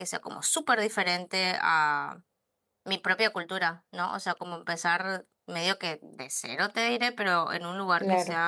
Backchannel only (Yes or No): Yes